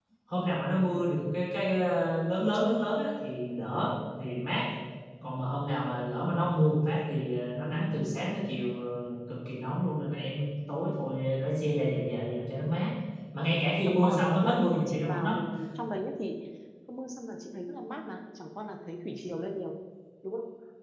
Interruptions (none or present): present